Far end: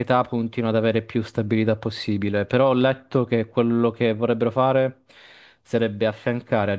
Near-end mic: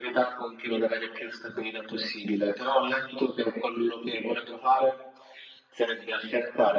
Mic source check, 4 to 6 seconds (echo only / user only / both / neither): echo only